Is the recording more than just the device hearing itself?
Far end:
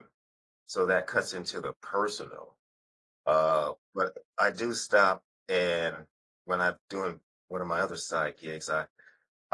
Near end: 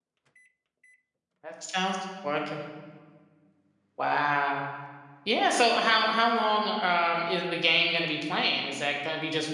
Yes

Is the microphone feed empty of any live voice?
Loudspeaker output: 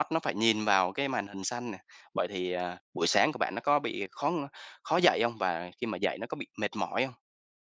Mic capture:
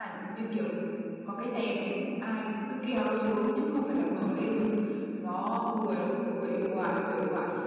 No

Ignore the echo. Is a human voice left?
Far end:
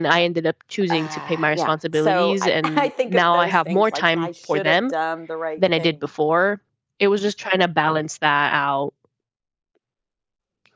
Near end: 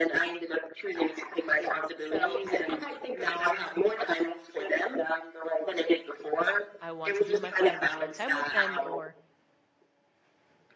Yes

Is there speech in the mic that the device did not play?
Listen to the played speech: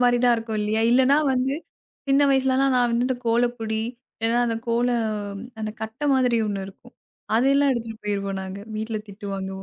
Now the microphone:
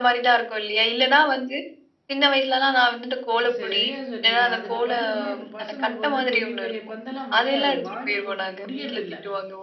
Yes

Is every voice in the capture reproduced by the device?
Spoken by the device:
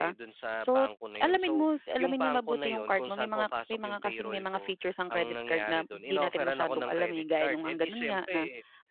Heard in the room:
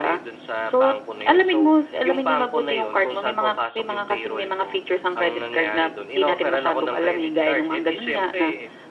Yes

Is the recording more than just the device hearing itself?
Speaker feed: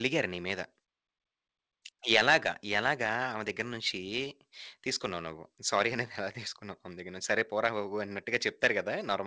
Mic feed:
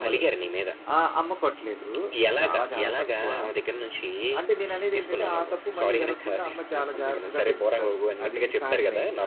Yes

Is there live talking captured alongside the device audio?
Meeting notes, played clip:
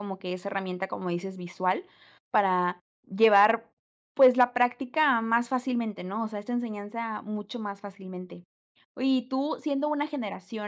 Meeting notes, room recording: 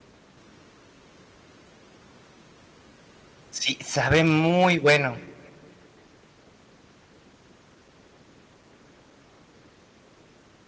Yes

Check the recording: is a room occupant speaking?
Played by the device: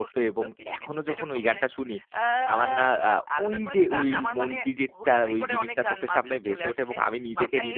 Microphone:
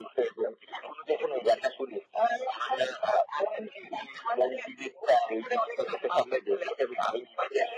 No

